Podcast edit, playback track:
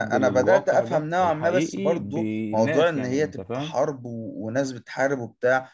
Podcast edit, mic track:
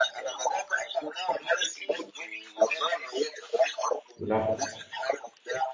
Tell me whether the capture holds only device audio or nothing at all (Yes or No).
No